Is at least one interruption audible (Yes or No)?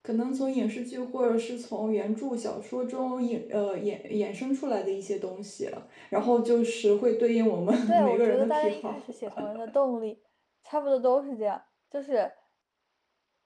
Yes